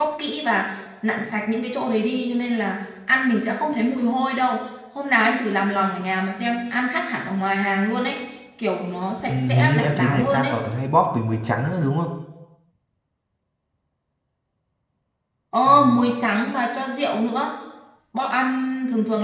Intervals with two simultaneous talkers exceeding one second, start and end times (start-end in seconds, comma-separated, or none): 9.3-10.6